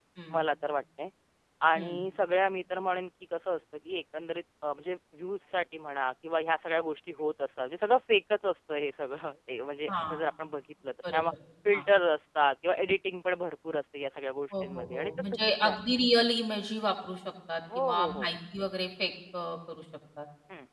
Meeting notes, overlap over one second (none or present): present